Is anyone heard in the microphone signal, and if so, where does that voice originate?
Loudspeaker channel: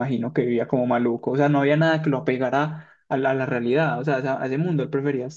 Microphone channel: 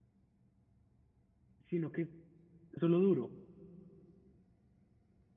user only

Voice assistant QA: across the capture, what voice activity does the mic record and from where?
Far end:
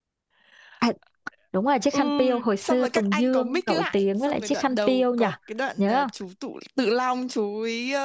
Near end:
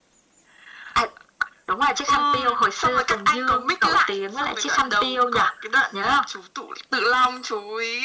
echo only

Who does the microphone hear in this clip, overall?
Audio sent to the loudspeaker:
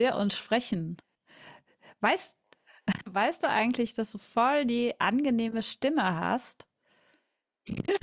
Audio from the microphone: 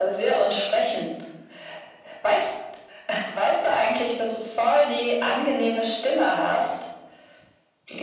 echo only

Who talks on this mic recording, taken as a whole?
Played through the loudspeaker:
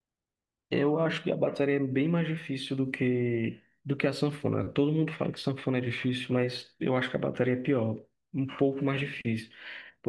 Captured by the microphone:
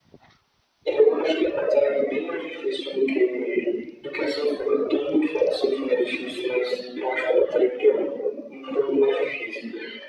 echo only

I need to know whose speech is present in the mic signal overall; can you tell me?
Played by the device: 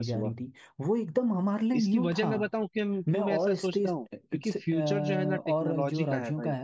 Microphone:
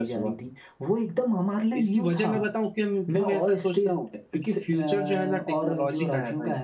echo only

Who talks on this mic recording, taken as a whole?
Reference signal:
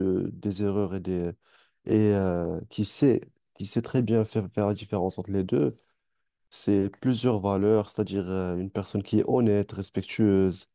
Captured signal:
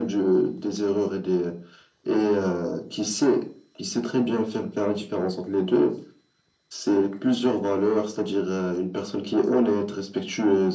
echo only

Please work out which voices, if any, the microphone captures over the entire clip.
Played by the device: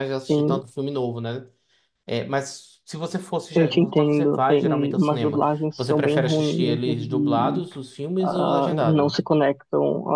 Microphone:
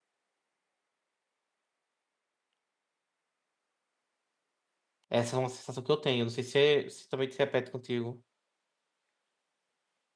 user only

